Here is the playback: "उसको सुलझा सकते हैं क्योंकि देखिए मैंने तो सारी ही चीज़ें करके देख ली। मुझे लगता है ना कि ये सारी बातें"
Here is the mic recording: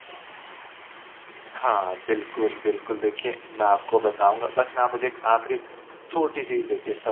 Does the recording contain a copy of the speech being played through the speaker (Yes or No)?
No